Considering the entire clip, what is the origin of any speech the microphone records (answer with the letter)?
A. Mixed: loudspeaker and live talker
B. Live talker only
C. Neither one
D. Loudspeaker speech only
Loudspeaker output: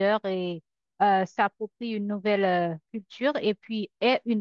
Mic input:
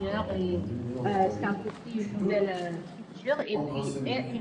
A